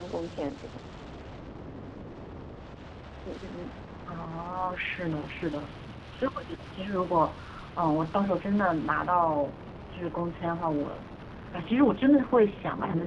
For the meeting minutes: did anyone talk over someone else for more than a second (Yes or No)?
No